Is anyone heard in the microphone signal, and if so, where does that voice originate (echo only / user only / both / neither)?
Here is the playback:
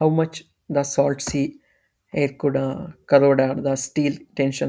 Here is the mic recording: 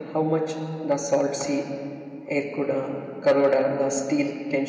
echo only